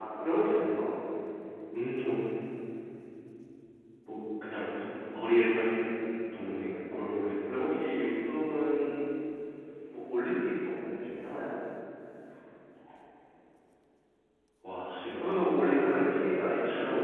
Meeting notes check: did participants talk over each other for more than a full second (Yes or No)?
Yes